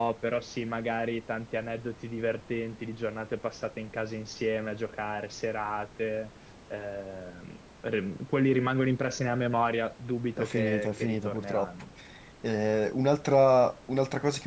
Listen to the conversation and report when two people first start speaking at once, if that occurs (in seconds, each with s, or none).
10.4 s